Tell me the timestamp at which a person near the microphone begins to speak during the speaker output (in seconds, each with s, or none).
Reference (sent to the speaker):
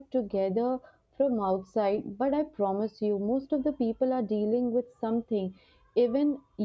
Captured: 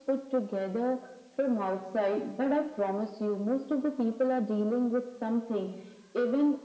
none